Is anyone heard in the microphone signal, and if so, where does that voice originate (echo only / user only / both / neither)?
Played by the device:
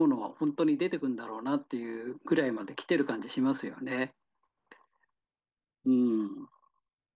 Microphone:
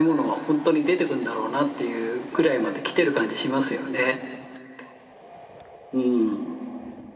echo only